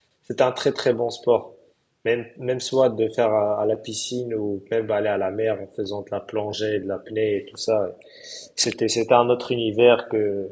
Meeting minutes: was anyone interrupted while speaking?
No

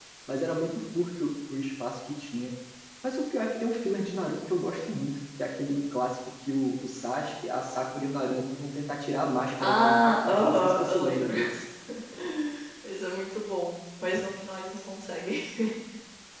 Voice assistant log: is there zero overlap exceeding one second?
No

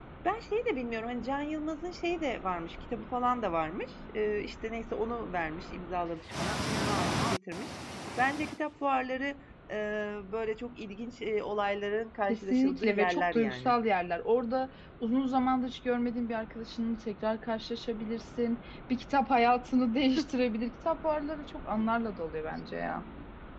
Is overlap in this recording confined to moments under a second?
No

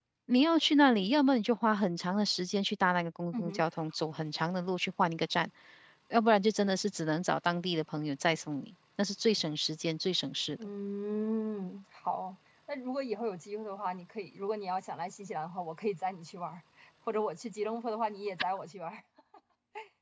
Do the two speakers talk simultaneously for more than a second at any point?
No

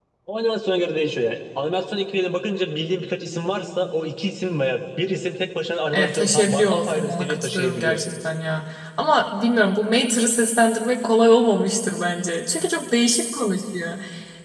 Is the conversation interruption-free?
No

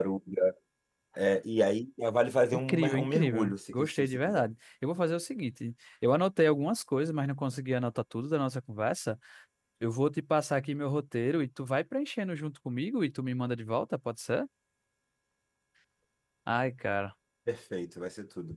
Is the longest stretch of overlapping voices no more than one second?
No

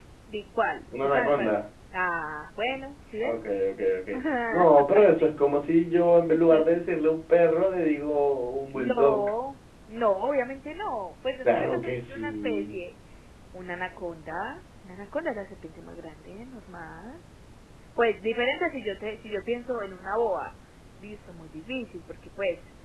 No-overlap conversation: No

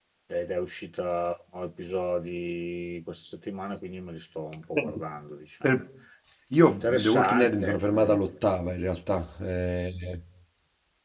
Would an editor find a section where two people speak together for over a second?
Yes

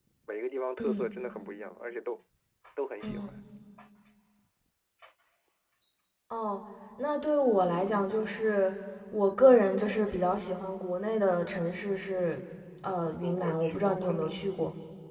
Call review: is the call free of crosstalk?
No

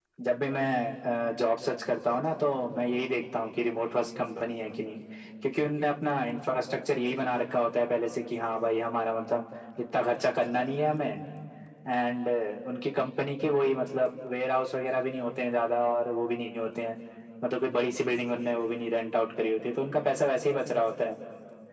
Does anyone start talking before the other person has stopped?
No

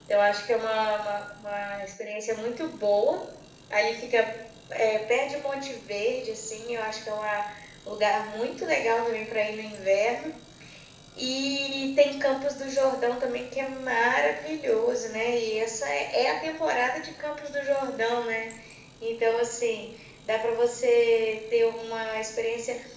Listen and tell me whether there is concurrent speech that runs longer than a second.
No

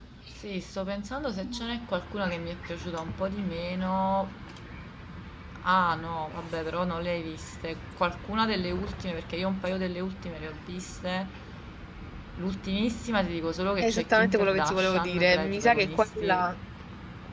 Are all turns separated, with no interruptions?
No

